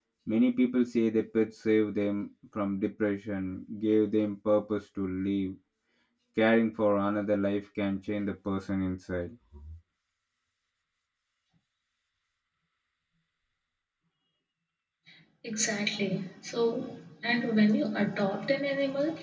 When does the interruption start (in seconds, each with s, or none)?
none